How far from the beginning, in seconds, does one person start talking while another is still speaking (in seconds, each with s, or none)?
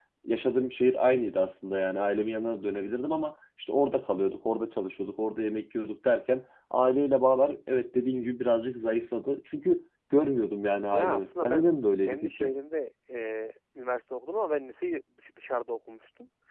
10.9 s